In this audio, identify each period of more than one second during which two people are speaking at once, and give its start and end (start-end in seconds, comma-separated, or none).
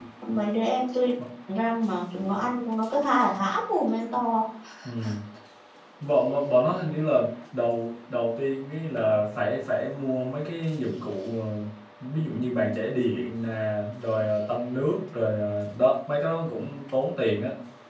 none